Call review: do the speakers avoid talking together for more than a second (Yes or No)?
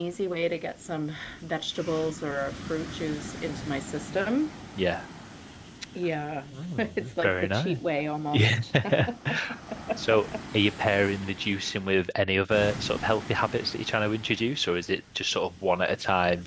No